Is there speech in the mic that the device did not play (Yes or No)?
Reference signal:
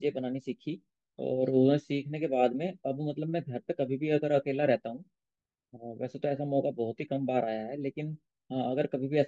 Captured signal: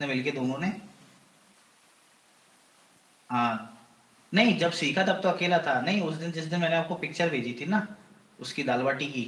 Yes